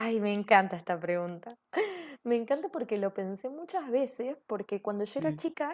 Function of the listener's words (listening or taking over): listening